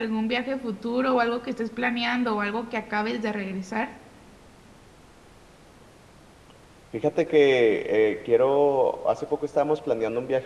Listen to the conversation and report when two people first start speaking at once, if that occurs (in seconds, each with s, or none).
none